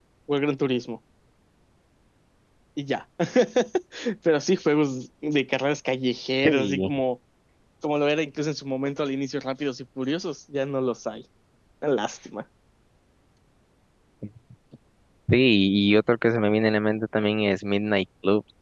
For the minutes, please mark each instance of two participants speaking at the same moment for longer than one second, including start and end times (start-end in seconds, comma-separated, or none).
none